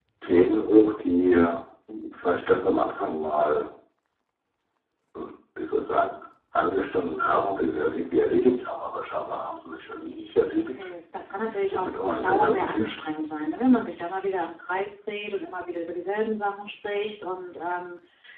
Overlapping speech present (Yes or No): Yes